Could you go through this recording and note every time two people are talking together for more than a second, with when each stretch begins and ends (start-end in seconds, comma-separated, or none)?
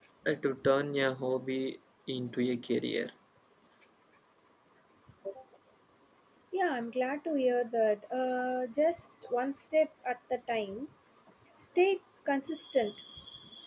none